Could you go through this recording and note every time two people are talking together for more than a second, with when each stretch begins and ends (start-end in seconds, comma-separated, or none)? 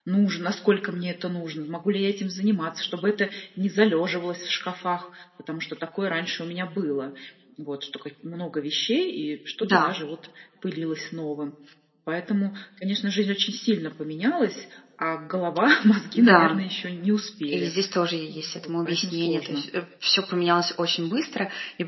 18.3-19.6